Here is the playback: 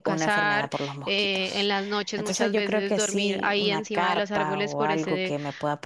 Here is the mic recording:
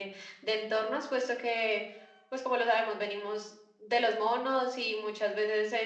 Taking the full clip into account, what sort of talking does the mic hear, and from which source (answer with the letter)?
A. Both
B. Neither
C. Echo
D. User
D